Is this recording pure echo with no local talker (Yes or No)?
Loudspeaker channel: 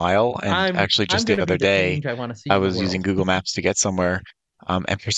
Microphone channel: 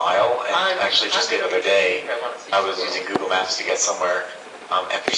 Yes